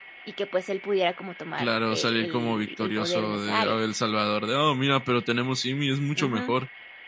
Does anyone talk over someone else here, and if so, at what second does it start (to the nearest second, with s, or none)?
2 s